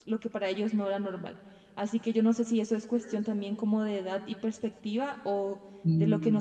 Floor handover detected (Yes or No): No